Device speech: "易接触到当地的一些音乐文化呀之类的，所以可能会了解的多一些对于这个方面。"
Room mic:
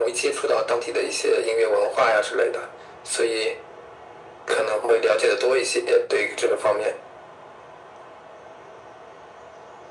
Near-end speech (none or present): none